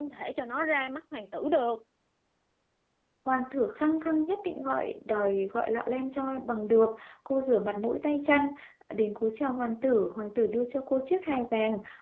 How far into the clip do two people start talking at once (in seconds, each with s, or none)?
none